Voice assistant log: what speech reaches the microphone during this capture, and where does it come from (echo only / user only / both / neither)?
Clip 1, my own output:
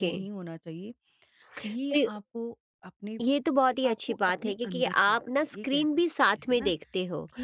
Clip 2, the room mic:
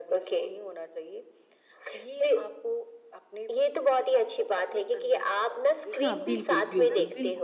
both